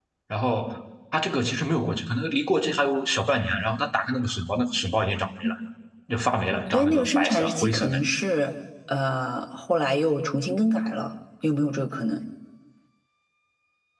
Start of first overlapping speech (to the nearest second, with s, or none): 7 s